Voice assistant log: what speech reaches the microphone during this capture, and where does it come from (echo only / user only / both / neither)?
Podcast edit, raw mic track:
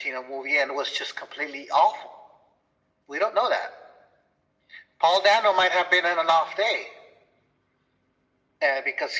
echo only